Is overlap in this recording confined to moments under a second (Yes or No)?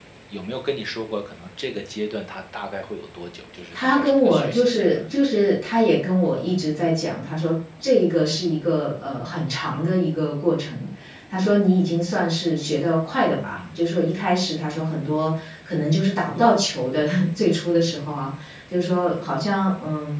No